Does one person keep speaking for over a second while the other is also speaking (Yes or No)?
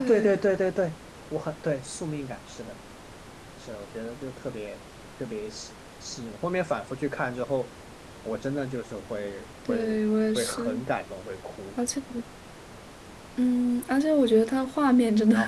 No